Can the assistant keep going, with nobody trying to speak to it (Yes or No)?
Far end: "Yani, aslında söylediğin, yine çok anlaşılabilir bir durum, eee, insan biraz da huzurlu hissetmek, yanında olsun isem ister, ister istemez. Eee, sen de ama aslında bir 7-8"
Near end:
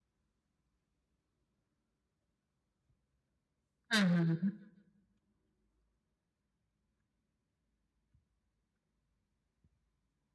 No